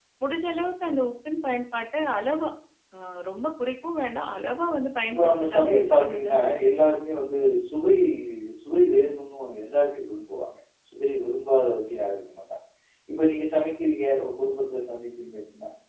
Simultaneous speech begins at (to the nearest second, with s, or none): 5 s